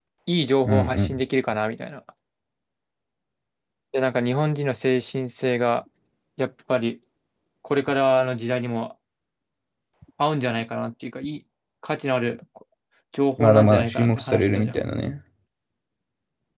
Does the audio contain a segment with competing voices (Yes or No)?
Yes